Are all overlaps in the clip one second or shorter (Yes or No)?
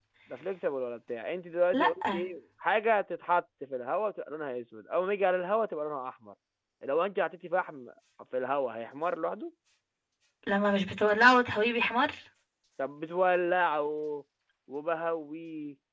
Yes